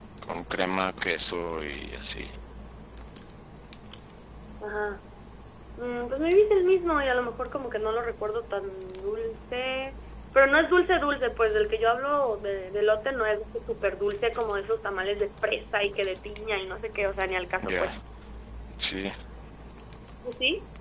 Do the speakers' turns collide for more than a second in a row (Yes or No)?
No